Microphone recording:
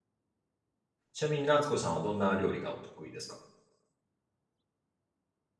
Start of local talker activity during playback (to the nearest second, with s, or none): 1 s